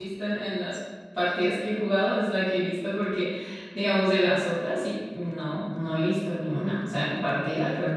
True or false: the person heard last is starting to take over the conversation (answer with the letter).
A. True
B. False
A